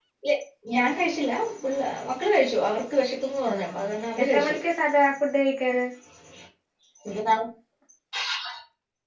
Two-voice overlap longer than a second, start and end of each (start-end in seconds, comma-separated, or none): none